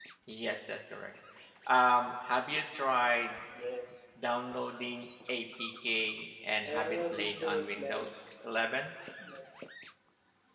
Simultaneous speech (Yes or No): Yes